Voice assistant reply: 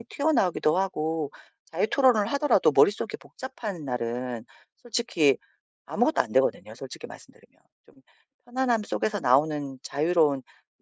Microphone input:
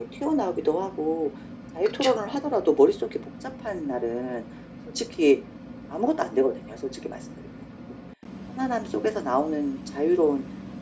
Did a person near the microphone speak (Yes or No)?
Yes